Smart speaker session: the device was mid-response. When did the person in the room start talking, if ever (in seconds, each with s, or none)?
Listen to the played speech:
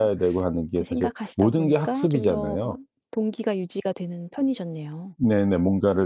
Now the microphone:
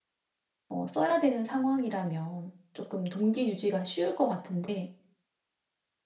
0.7 s